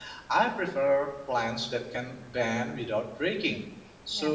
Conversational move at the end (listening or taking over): listening